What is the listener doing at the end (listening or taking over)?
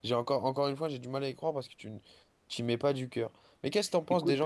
listening